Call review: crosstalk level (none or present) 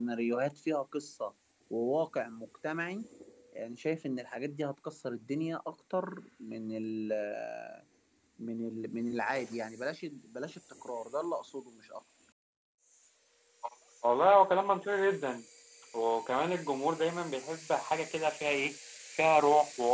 none